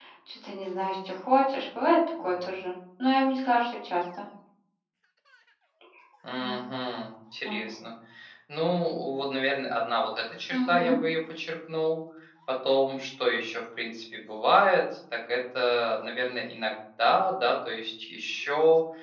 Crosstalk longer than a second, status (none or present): none